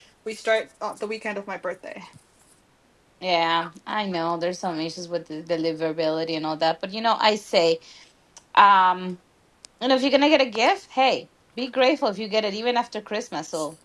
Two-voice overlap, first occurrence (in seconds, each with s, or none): none